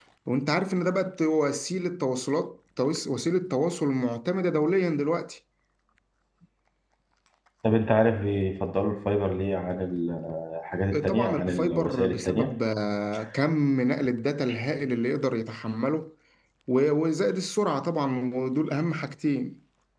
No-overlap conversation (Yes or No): No